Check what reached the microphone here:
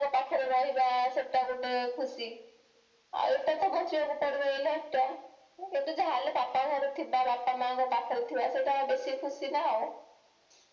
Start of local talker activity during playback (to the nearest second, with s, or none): none